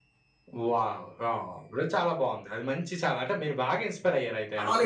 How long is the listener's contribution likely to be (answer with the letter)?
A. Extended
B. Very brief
A